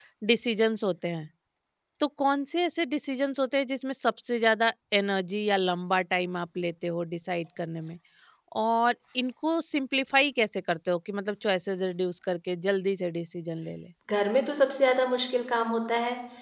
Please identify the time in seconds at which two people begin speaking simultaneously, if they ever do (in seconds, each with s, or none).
none